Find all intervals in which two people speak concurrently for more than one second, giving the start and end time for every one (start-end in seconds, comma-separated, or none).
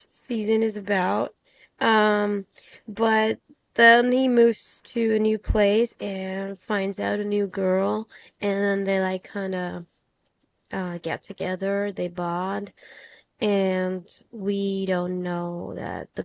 none